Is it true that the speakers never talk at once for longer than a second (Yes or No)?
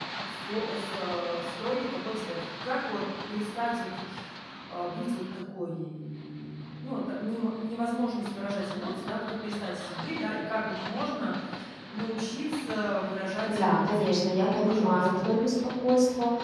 No